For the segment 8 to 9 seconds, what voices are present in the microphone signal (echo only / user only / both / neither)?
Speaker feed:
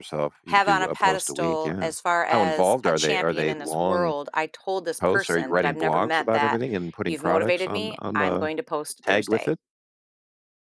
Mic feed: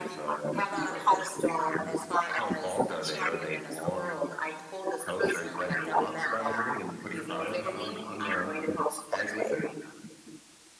echo only